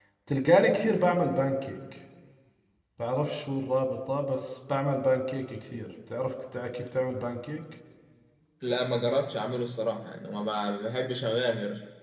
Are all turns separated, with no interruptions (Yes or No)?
Yes